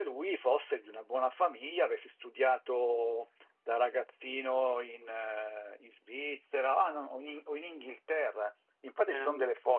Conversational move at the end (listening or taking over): listening